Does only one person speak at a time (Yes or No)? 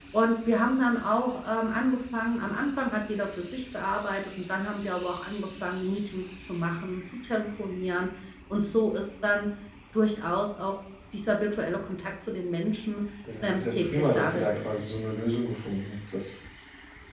No